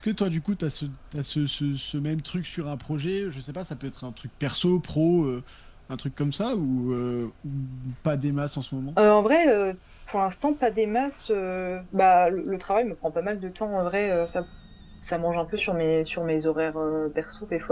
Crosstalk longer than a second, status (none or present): none